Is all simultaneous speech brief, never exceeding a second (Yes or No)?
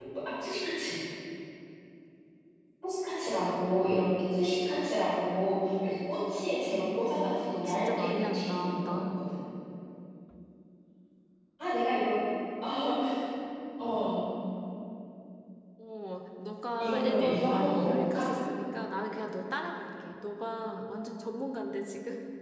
No